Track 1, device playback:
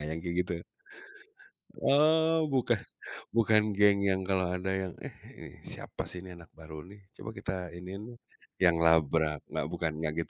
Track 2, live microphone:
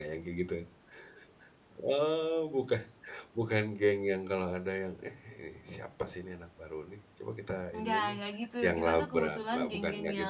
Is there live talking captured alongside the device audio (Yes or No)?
Yes